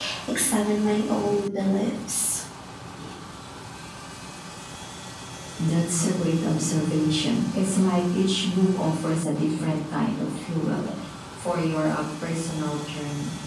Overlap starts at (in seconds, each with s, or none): none